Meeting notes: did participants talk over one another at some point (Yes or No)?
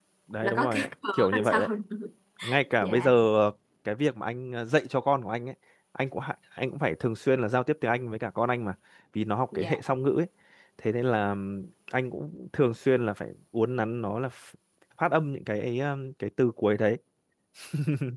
Yes